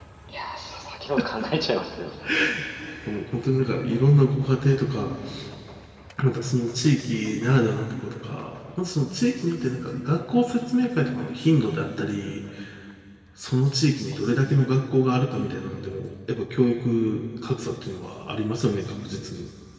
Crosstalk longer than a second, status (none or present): none